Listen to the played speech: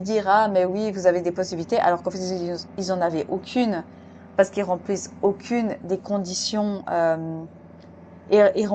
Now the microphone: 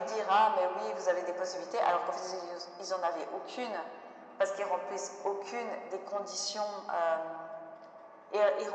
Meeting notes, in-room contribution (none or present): none